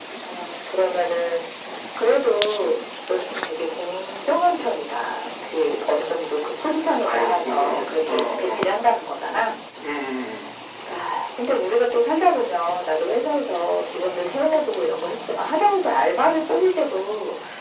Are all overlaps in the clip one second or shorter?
No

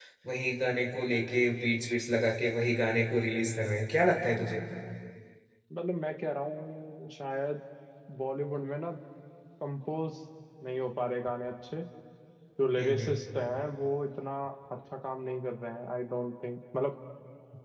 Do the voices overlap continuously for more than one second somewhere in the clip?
No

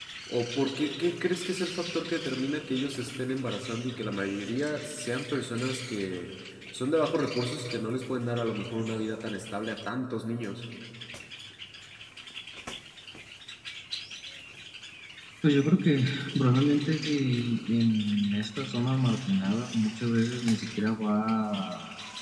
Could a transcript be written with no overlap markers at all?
Yes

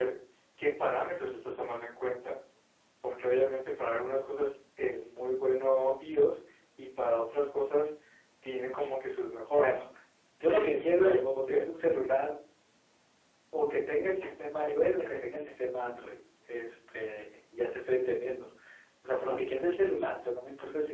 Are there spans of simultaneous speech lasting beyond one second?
Yes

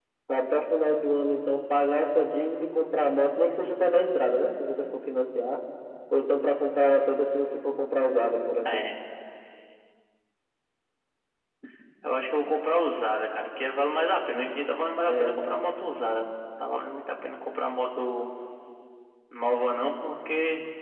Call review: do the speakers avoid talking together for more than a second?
Yes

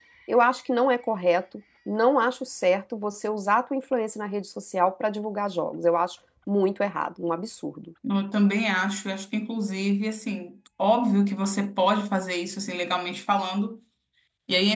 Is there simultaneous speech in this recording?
No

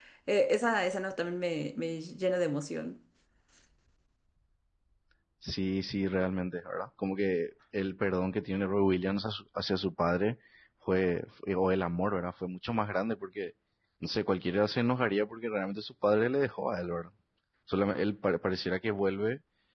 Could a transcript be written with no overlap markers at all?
Yes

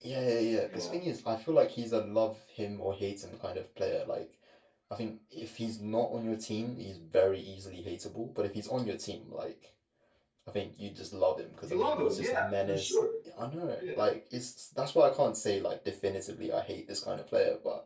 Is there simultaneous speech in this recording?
Yes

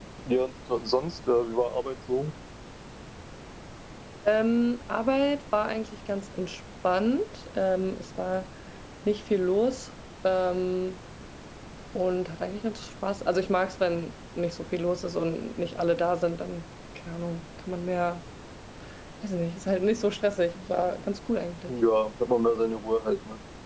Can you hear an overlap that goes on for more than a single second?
No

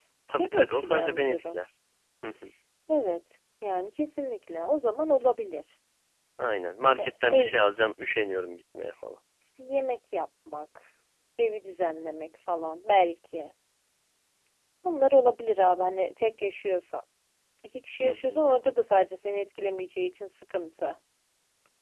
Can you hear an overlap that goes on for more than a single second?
Yes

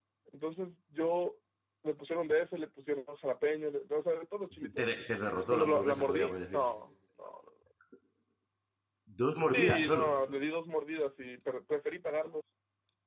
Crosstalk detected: Yes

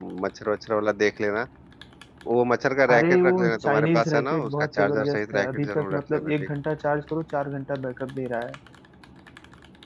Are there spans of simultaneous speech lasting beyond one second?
Yes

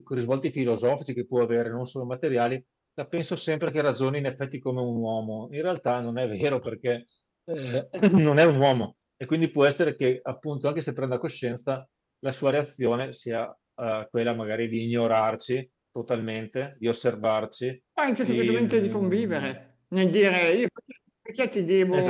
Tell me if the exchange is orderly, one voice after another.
No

